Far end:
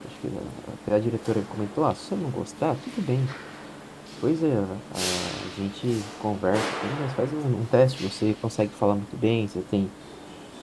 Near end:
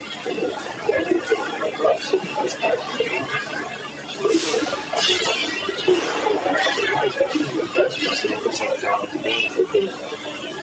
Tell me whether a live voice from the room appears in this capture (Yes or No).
No